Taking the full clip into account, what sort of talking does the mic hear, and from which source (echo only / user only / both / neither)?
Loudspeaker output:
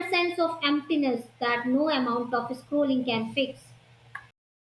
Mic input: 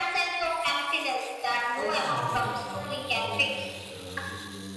both